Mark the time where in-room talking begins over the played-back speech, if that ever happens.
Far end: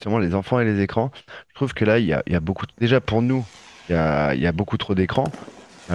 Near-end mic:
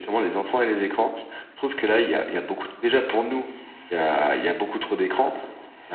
none

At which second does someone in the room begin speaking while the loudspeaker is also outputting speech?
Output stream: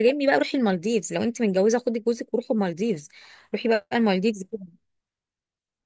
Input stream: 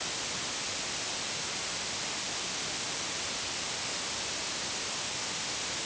none

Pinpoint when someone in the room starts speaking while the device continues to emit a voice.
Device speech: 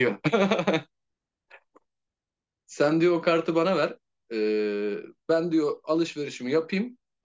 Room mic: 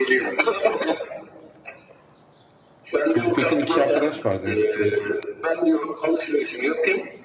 3.1 s

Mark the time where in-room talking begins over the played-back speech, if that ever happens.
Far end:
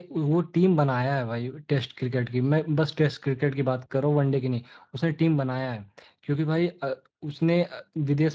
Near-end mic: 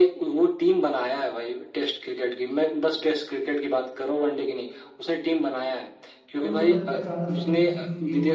6.4 s

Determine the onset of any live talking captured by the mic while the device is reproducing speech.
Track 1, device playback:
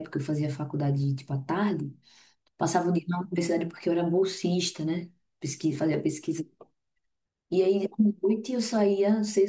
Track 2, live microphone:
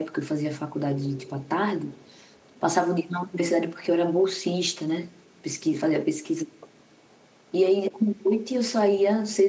none

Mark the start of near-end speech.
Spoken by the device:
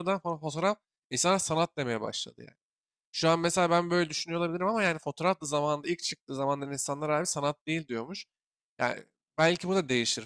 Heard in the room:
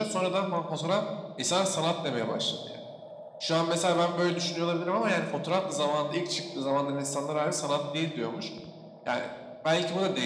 none

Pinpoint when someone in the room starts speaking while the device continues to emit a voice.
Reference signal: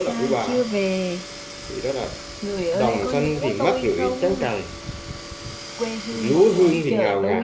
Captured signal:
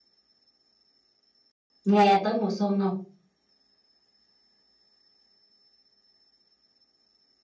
1.8 s

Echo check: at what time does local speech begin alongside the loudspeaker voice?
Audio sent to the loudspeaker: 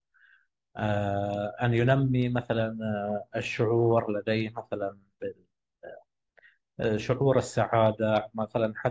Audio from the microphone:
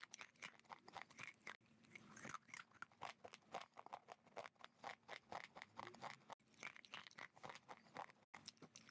none

